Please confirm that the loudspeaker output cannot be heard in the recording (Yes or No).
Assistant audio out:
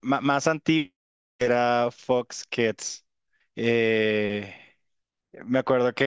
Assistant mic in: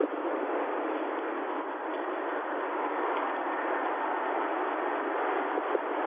Yes